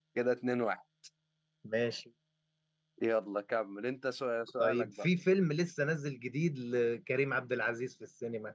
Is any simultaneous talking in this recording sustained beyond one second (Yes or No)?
No